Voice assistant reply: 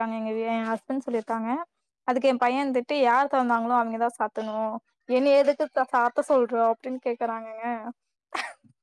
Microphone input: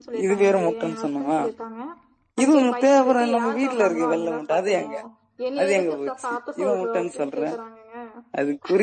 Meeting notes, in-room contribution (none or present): present